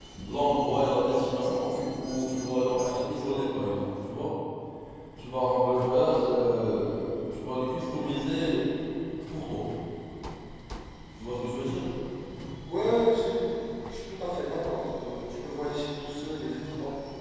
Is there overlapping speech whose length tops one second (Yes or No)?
No